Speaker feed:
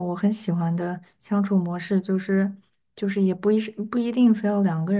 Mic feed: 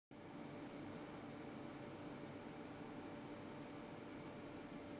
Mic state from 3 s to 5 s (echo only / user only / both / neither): neither